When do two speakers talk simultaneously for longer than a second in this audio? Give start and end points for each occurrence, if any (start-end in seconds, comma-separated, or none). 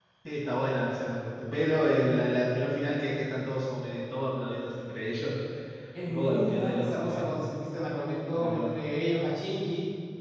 6.1-7.3